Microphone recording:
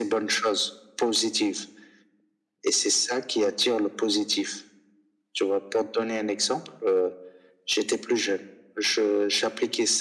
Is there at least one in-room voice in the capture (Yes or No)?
No